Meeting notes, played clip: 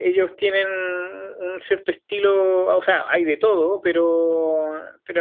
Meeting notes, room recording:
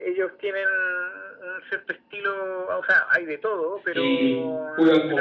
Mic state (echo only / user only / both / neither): both